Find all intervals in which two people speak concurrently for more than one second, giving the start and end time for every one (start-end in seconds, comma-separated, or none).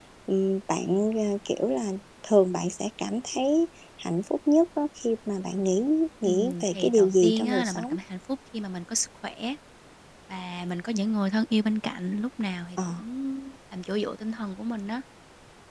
6.2-8.0